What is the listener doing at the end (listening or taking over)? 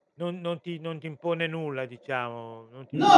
taking over